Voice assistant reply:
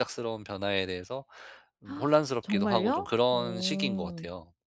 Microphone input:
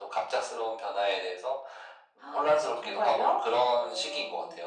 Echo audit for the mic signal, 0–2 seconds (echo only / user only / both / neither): echo only